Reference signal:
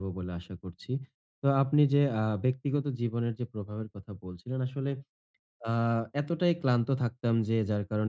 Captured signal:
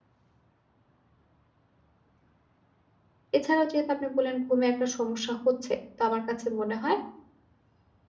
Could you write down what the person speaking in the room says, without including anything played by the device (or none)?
এছাড়াও যেহেতু আপনি বললেন ঘুমে একটা সমস্যা হচ্ছে, তো আমার কাছে মনে হয়